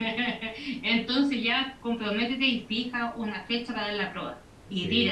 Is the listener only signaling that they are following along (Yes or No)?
No